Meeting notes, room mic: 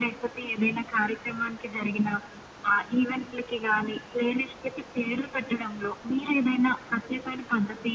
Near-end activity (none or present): none